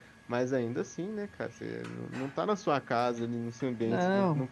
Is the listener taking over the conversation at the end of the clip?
No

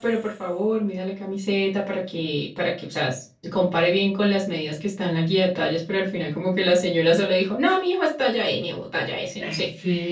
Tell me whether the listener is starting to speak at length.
Yes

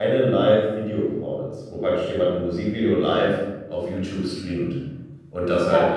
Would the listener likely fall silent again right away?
Yes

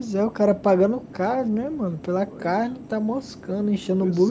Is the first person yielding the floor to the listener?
Yes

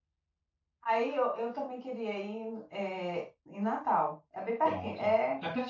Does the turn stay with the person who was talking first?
No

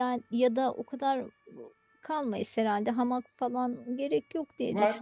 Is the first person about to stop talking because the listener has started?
Yes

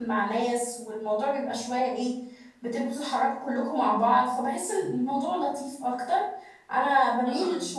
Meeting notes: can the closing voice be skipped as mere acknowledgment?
Yes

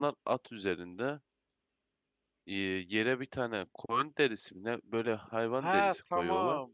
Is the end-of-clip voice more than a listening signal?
Yes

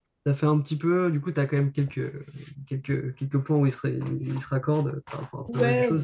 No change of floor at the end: No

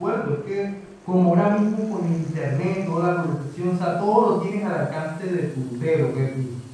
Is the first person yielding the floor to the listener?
No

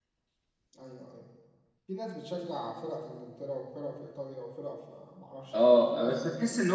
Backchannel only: No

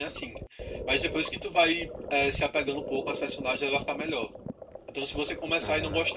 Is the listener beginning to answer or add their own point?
No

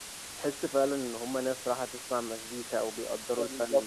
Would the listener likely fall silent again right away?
No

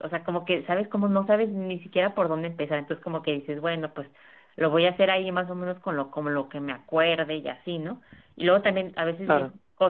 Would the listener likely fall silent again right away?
Yes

